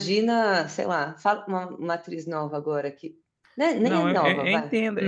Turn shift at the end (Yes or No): Yes